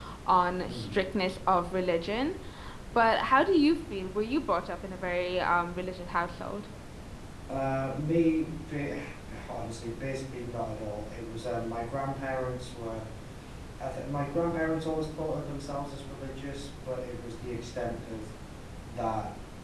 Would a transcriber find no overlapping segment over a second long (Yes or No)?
Yes